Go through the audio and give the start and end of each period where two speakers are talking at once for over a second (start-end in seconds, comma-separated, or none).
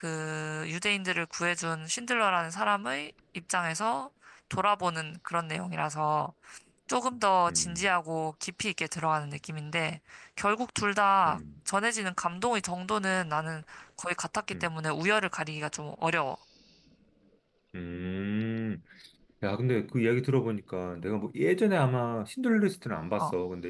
none